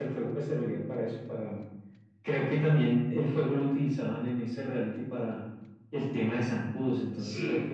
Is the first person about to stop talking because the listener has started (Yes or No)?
No